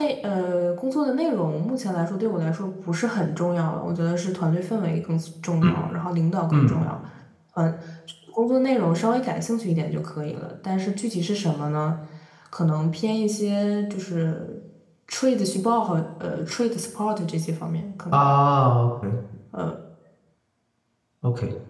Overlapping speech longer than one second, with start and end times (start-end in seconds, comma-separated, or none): none